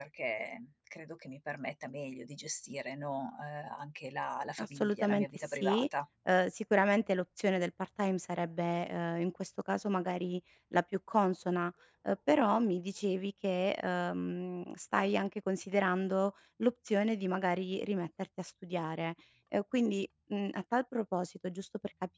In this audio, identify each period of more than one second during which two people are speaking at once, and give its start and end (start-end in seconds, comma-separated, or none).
4.6-5.8